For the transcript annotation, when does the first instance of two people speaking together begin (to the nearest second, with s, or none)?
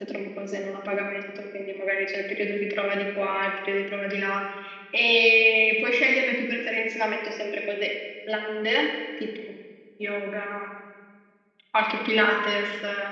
none